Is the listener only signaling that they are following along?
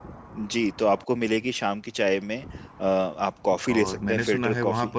No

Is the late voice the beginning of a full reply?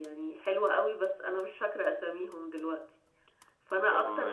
Yes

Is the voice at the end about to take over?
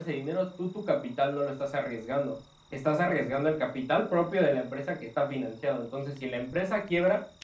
No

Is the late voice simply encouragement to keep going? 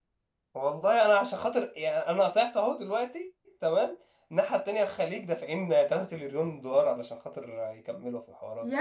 No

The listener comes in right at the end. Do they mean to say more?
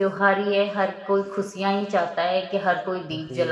Yes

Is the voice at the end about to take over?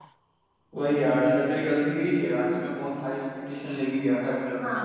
Yes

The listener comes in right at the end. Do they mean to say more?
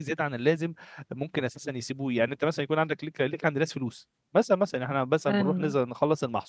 No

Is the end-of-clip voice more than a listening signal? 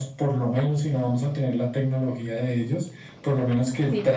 No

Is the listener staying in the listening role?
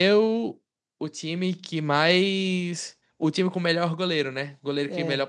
Yes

